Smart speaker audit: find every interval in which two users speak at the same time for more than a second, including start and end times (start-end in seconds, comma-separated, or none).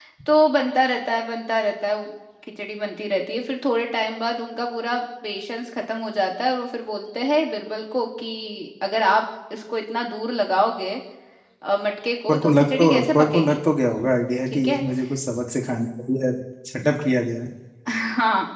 12.3-13.6